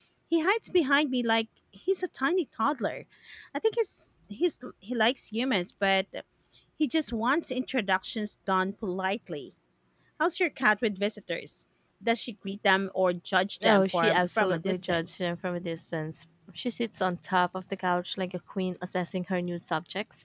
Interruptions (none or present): present